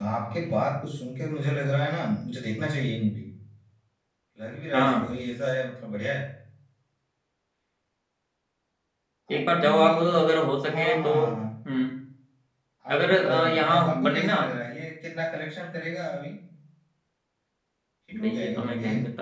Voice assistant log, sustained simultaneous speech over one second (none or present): present